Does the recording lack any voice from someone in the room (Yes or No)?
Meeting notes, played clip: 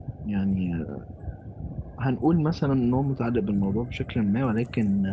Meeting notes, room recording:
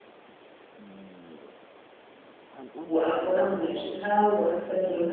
No